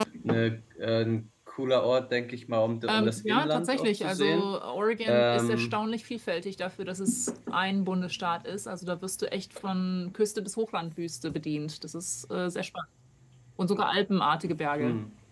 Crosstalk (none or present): present